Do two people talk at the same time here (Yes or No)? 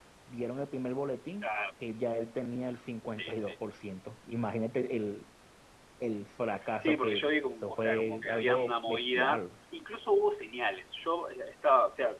Yes